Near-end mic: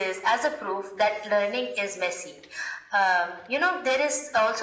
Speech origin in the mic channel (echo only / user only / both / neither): echo only